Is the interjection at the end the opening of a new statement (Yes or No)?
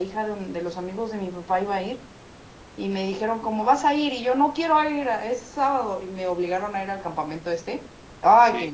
No